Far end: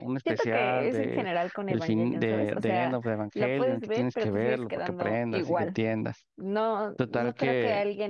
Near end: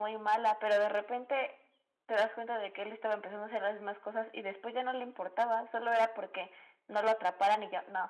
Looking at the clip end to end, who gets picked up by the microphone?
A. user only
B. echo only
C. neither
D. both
A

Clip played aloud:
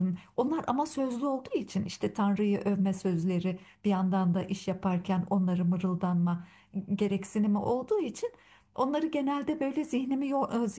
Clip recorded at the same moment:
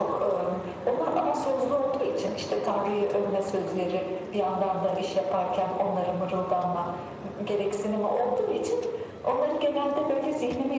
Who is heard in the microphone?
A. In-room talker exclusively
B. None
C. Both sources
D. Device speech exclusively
D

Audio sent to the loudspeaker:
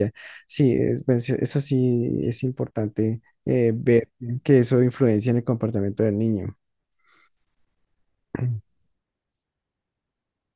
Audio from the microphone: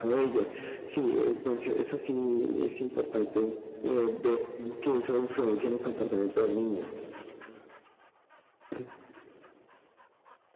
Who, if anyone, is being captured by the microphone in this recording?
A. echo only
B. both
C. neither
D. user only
A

